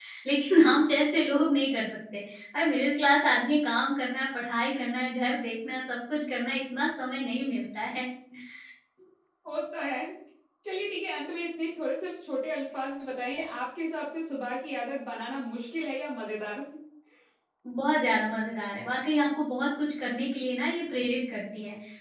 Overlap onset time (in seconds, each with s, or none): none